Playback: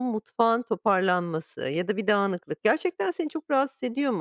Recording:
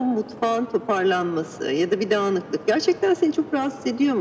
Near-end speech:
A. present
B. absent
B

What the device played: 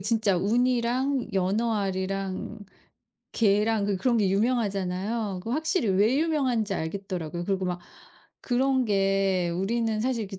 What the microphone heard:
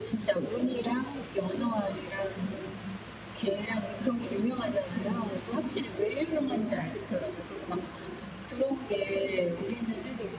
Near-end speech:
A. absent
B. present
A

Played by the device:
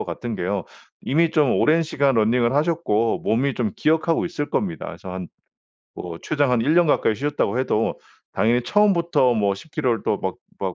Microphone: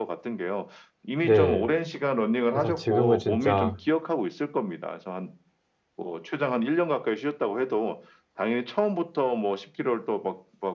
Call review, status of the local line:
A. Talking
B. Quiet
A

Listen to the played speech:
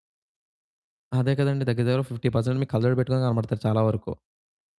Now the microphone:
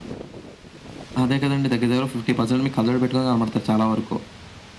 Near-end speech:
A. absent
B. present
A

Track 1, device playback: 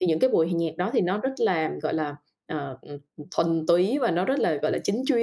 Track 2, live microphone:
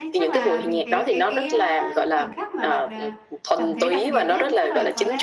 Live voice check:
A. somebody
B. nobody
A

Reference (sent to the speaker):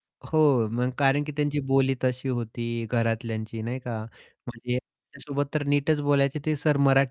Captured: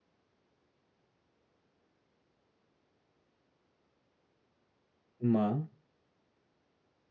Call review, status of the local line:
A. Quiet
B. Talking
B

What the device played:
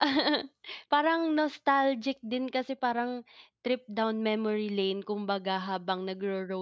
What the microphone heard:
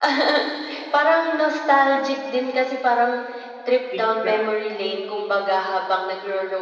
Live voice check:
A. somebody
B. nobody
A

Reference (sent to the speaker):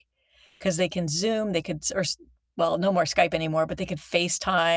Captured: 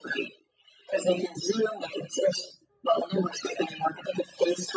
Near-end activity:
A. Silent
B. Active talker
A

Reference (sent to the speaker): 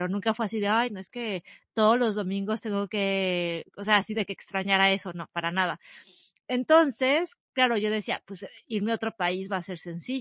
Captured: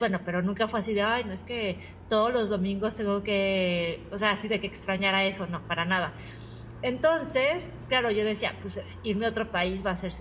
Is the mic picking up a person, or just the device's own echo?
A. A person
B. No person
B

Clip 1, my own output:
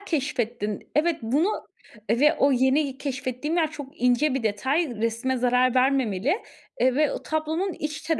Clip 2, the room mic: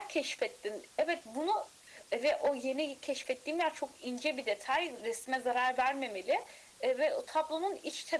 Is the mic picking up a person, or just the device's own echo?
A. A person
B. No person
B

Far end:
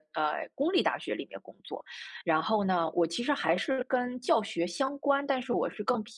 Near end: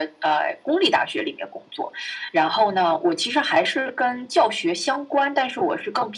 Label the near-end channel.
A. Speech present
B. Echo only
B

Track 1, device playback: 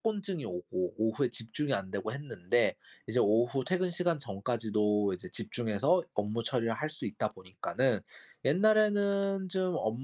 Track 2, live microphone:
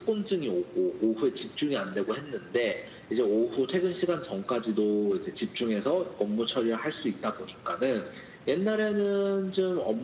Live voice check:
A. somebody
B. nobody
B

